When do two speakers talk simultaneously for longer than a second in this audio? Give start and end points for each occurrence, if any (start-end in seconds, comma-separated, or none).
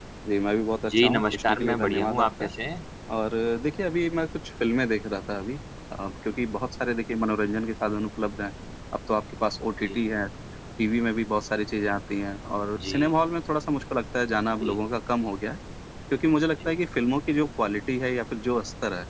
0.9-2.5